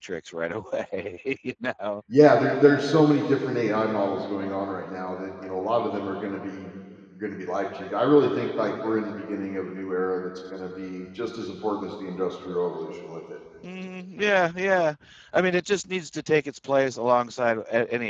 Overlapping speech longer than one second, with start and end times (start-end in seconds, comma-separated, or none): none